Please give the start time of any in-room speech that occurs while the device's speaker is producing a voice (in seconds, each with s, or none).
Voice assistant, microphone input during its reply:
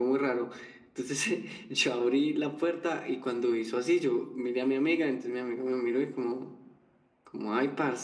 none